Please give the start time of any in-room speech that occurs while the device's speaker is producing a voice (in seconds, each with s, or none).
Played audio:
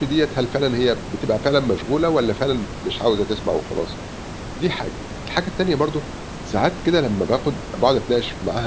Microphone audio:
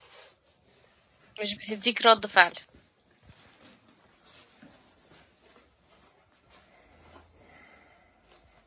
1.4 s